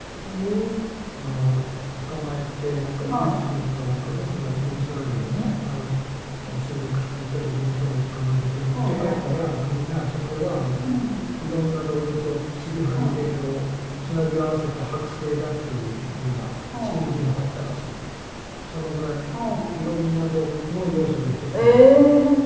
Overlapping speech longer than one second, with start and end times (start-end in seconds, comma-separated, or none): none